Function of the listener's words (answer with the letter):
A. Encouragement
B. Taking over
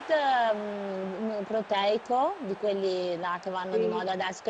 A